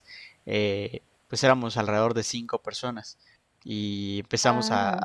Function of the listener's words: listening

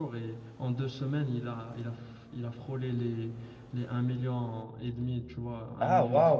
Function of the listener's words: taking over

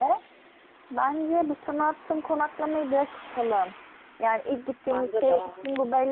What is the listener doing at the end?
listening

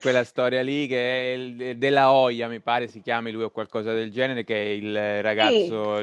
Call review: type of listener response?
listening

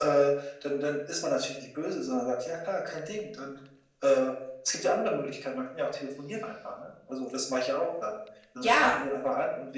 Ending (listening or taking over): listening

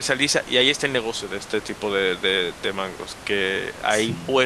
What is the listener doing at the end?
listening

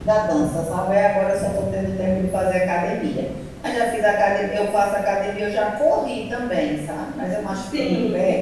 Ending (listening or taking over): listening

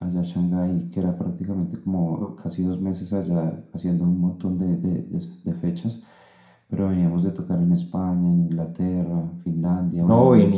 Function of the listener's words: taking over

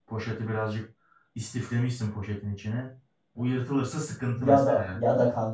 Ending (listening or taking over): taking over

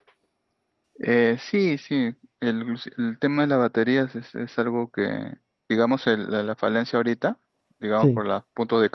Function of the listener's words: listening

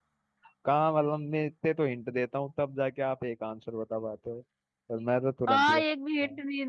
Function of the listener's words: taking over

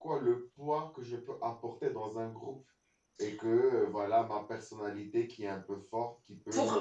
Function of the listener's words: listening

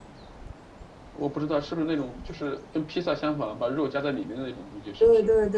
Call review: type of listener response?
taking over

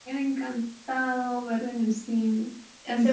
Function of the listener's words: taking over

